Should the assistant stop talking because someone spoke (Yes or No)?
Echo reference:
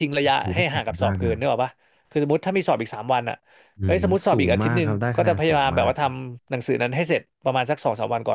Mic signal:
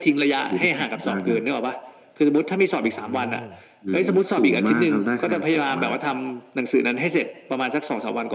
Yes